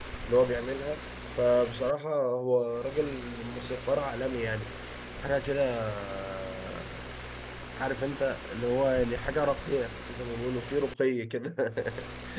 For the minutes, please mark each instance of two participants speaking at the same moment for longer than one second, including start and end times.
none

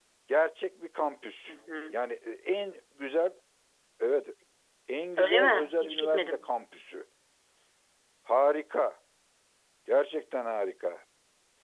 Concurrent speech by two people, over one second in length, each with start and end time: 5.2-6.5

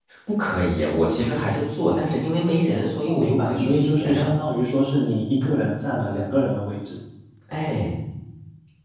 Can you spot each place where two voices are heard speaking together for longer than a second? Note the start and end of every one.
3.0-4.3

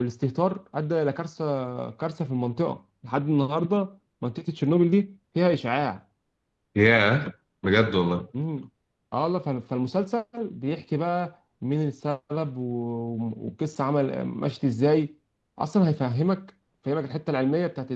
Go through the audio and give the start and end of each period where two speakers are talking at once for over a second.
none

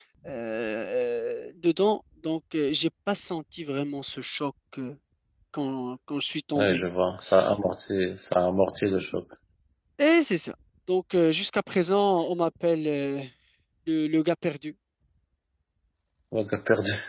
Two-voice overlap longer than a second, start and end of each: none

